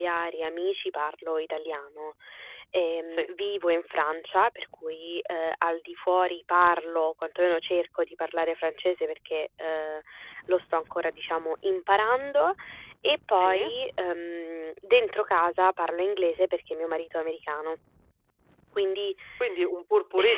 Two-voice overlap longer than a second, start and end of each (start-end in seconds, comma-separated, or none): none